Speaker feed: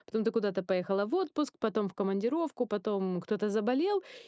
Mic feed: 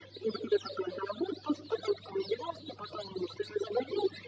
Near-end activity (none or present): none